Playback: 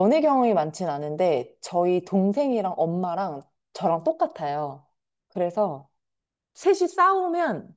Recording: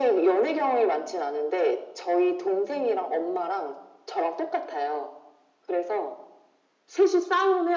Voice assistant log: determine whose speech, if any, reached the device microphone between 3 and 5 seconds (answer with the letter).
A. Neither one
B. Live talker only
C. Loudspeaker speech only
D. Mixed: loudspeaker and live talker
C